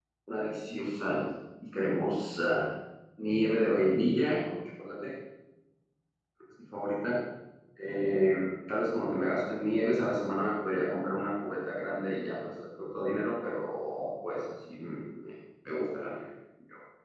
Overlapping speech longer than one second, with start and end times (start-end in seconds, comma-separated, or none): none